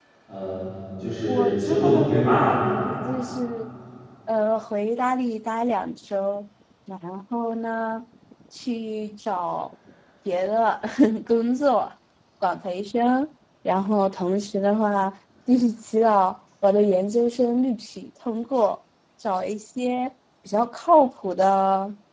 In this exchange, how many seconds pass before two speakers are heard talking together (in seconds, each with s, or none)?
1.3 s